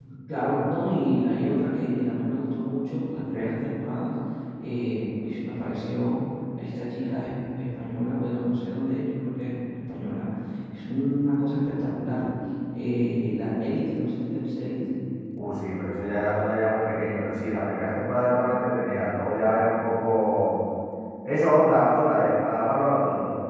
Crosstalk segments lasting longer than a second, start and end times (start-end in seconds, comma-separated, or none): none